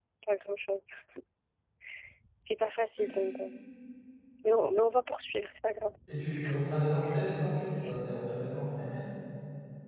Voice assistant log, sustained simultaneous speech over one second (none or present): none